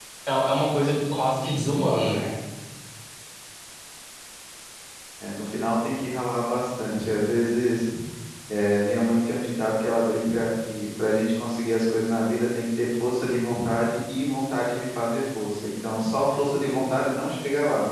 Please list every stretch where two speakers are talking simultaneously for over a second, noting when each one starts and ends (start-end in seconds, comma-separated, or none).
none